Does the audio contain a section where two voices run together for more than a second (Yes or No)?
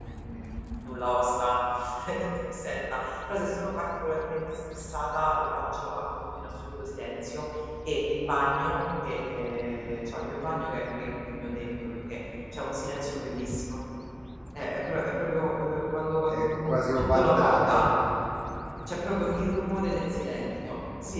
Yes